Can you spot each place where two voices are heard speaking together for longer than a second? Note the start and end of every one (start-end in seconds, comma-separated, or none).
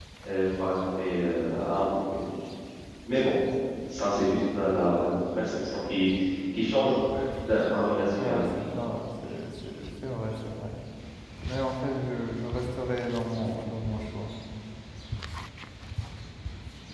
none